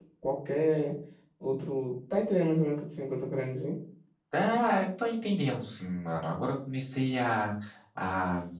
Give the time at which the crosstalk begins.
none

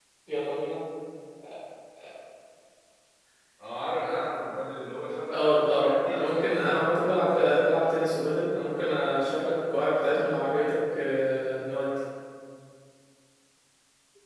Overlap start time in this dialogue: 5.3 s

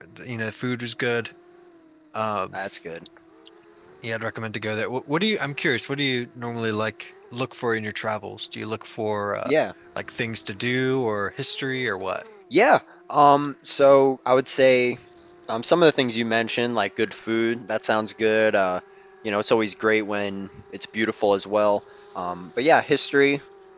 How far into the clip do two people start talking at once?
none

